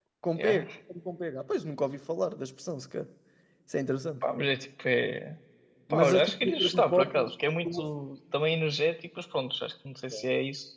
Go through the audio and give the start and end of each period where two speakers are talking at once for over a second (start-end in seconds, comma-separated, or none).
5.9-7.1